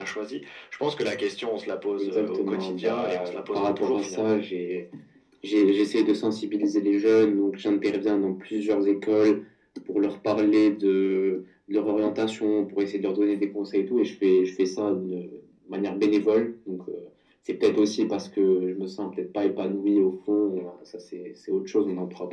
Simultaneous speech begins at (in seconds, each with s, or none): 2.0 s